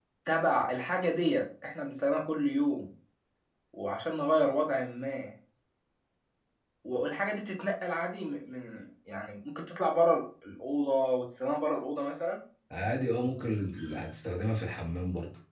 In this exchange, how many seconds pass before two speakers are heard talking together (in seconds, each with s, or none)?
none